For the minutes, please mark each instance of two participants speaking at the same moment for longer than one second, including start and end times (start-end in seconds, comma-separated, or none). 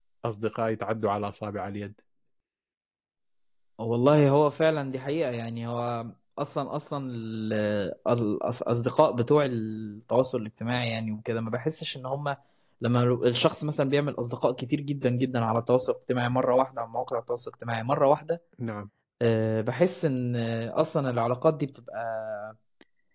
none